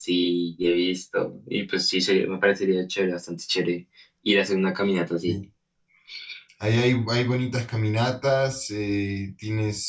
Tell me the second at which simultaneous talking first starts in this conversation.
none

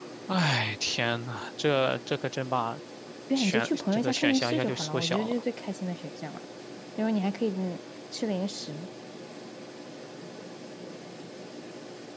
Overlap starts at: 3.3 s

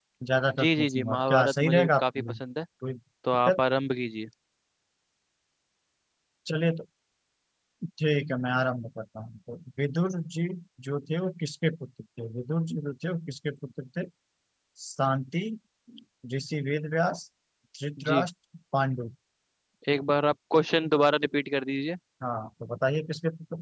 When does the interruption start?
0.6 s

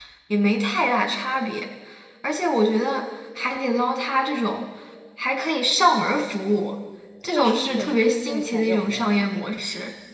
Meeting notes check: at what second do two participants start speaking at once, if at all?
7.3 s

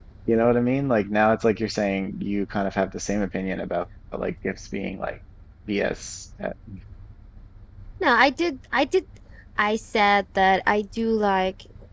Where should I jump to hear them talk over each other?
none

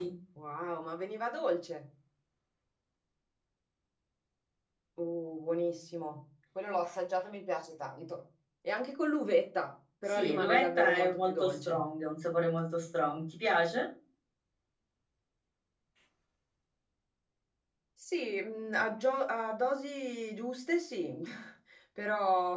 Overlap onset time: 10.1 s

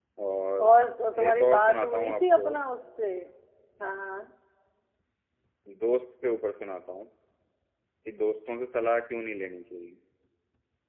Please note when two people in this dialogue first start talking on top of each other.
1.3 s

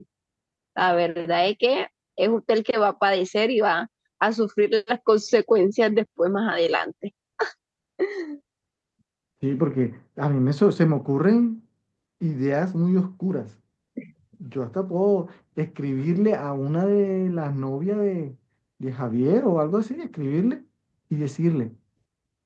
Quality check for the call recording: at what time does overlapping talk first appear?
none

